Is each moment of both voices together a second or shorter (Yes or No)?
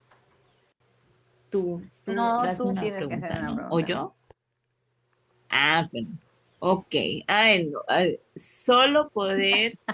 No